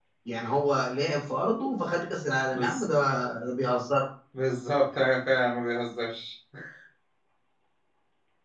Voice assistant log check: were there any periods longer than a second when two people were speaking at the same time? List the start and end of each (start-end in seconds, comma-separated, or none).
none